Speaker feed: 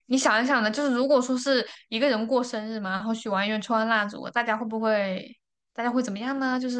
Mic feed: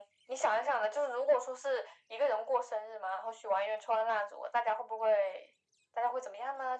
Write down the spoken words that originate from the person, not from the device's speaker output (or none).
none